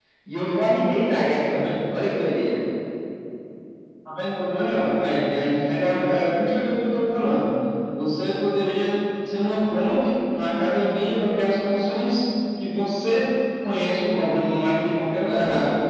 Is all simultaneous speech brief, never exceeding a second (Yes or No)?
Yes